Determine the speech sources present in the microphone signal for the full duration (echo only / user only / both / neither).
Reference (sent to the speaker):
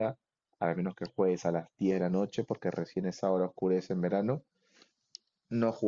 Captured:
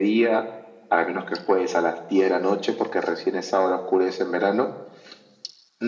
echo only